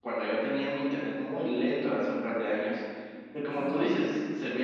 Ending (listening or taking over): listening